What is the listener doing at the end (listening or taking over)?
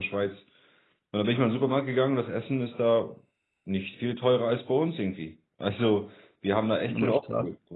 listening